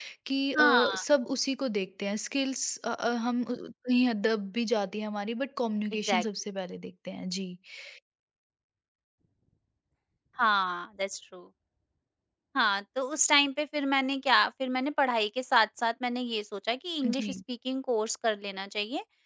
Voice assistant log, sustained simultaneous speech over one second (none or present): none